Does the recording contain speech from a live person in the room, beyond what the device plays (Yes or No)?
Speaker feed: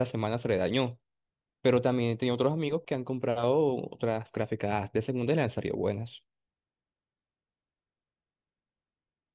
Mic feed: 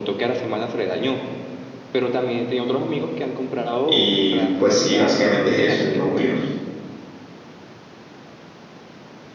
Yes